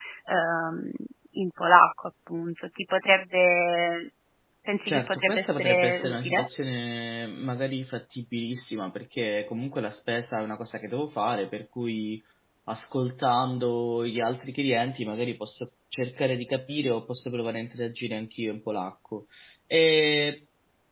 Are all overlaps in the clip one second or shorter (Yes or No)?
No